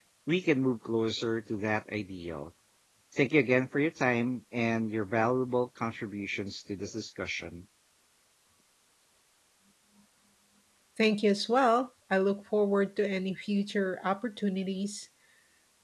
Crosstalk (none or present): none